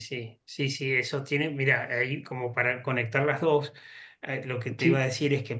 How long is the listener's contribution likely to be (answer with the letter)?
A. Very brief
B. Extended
A